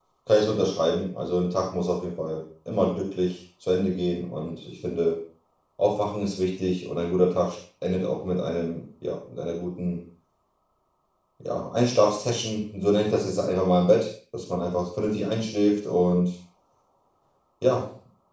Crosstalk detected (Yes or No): No